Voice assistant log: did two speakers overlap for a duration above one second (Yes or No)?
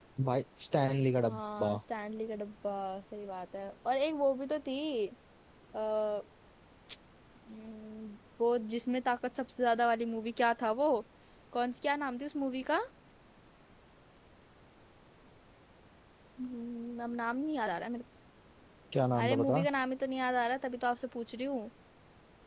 No